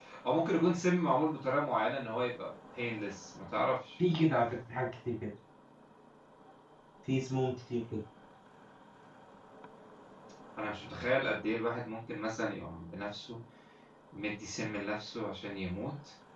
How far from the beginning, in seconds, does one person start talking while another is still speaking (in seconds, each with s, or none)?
none